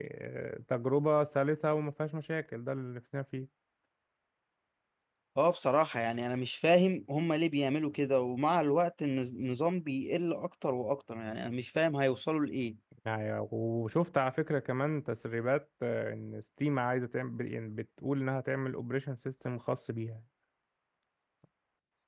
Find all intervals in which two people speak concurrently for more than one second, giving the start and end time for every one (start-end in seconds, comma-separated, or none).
none